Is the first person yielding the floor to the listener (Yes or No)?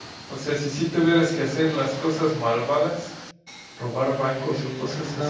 Yes